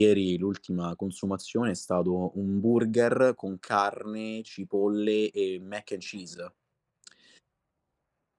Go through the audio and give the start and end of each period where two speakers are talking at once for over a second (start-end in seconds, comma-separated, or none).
none